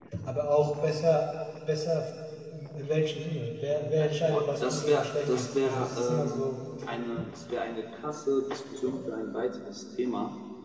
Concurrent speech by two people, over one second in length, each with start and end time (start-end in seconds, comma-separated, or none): 4.0-6.5